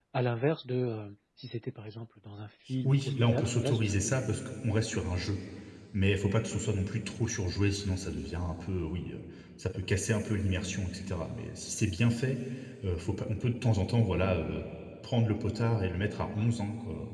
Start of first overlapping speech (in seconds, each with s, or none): 2.8 s